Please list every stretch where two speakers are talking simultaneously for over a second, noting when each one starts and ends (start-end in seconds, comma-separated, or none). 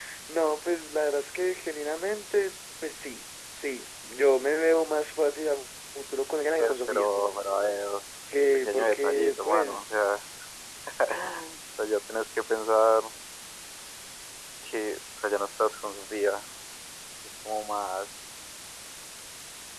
8.7-9.9